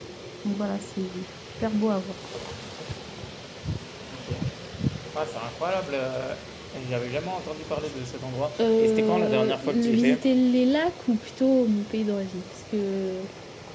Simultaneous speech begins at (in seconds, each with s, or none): 8.6 s